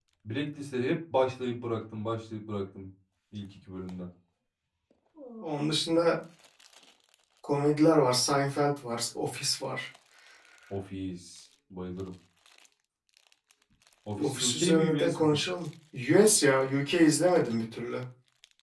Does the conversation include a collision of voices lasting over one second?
Yes, from 14.2 s

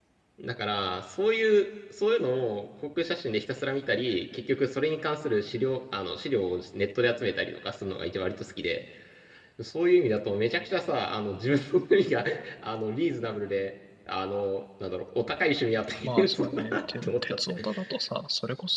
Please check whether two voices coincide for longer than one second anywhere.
Yes, from 16.0 s

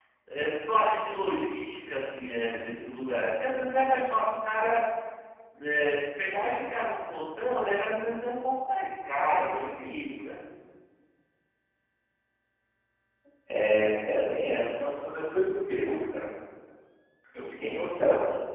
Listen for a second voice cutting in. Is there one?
No

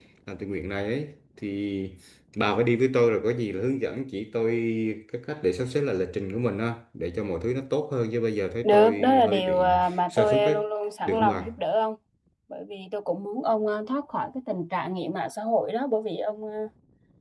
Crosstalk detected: Yes, from 8.6 s

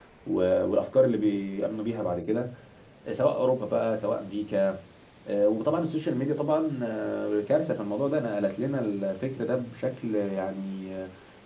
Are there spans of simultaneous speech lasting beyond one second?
No

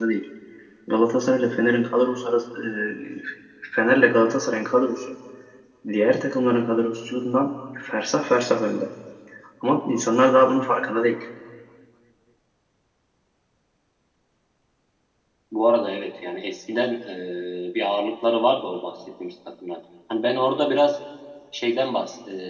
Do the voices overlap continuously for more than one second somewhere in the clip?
No

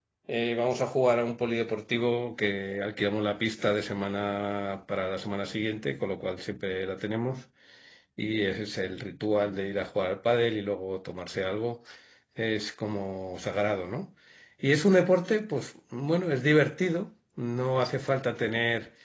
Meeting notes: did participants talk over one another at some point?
No

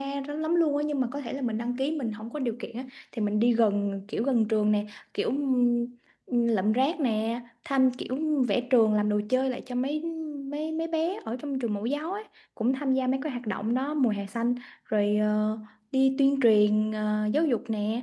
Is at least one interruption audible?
No

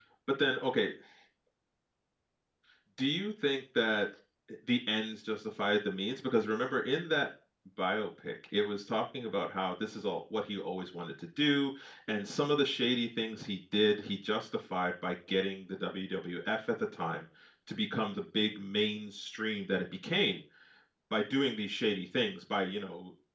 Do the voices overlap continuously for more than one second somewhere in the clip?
No

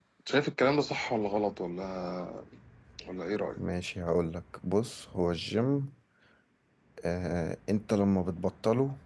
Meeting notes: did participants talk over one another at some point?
No

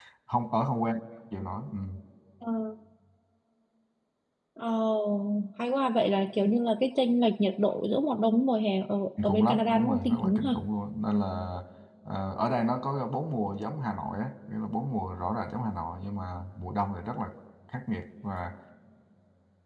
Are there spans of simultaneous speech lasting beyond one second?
Yes, from 9.2 s

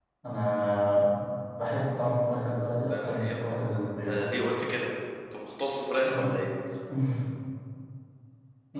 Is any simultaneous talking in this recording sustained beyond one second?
Yes, from 2.9 s

